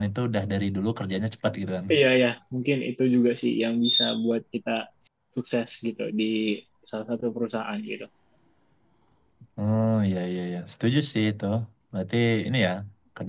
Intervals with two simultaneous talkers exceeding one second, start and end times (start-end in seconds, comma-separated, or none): none